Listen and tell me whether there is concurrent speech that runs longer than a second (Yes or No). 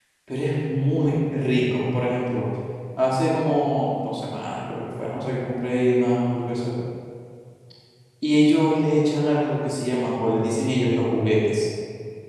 No